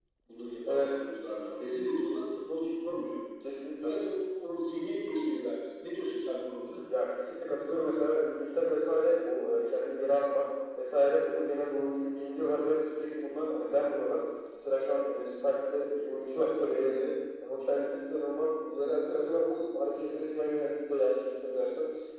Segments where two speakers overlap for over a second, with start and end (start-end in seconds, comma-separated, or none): none